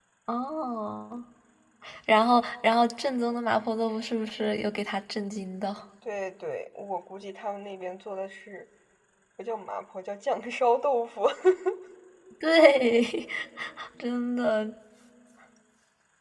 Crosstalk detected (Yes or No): No